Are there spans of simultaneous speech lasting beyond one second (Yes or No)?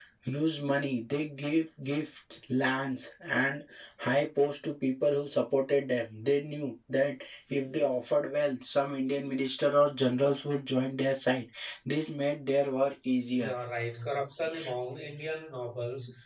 No